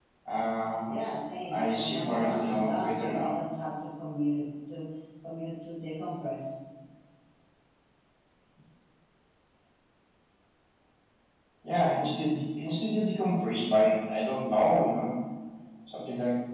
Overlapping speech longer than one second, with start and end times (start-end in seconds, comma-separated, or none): 1.5-3.4